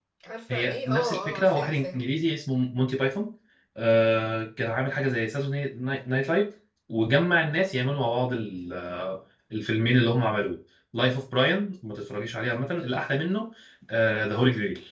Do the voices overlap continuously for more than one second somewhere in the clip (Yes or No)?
Yes